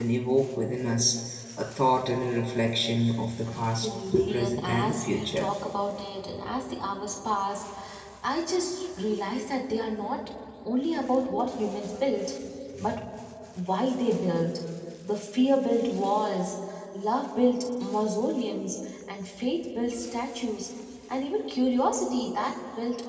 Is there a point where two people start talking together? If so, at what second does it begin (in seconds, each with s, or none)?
3.5 s